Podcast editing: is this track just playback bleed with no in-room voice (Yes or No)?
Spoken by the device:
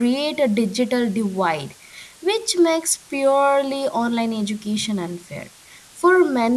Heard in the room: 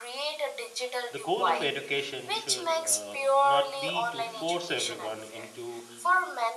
No